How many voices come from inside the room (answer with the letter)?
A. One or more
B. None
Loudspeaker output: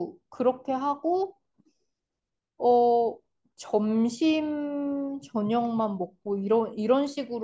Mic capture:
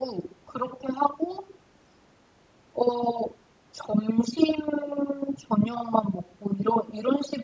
B